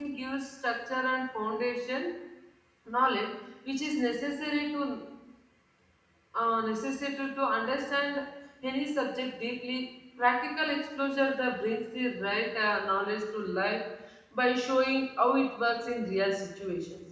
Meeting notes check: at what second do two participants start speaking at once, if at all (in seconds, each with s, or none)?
none